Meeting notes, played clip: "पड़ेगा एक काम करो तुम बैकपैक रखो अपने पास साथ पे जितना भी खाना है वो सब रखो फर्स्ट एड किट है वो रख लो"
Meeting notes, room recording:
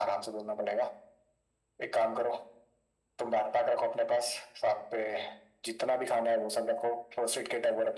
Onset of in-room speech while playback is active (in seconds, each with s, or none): none